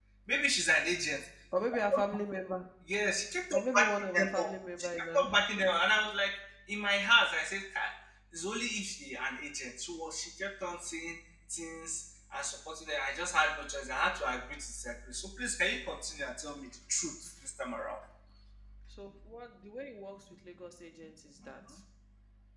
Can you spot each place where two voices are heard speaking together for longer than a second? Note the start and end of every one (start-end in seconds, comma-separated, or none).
3.5-5.2